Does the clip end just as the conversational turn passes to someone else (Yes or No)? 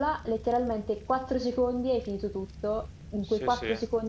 No